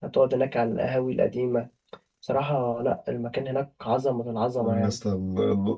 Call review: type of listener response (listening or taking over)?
taking over